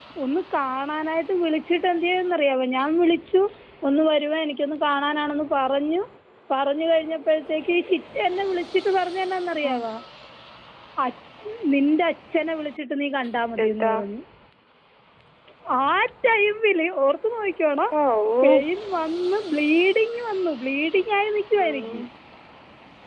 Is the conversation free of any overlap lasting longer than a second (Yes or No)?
Yes